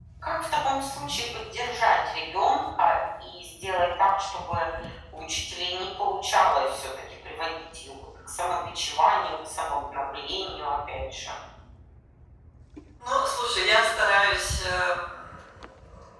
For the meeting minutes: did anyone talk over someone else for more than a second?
No

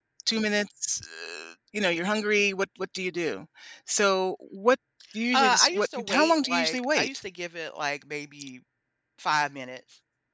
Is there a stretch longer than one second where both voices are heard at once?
Yes, from 5.3 s

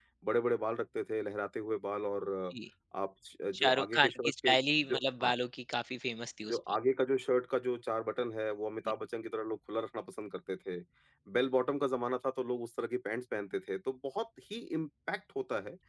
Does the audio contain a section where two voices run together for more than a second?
Yes, from 3.6 s

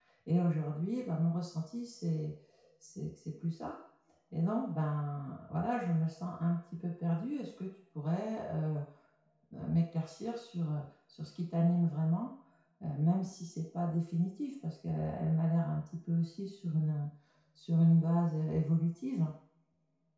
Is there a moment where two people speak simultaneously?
No

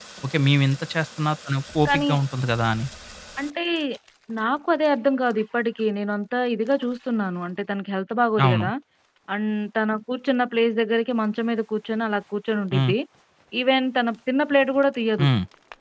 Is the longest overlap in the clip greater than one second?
No

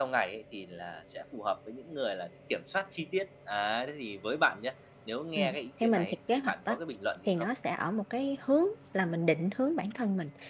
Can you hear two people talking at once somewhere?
Yes, from 5.4 s

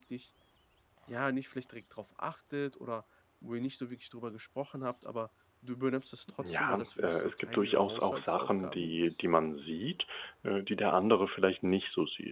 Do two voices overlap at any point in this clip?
Yes, from 6.4 s

